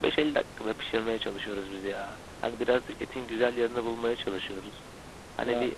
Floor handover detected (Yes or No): No